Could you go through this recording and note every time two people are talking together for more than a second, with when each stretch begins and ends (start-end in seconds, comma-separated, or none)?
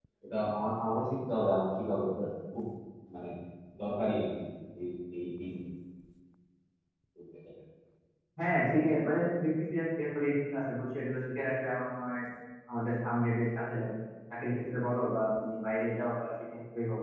none